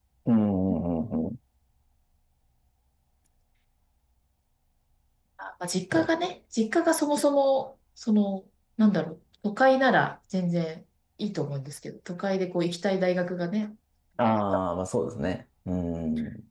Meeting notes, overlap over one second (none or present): none